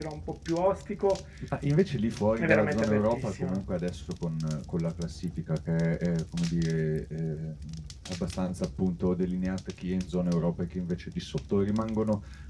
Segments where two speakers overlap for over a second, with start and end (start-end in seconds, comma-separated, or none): 2.4-3.6